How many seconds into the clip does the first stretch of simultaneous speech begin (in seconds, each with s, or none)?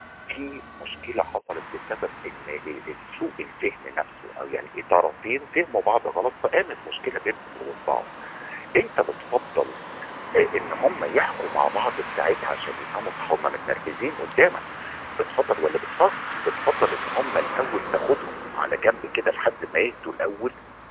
none